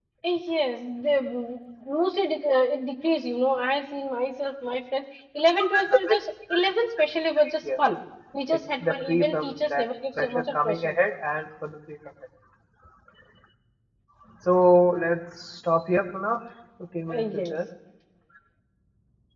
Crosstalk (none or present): present